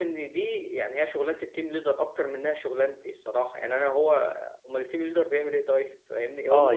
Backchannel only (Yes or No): No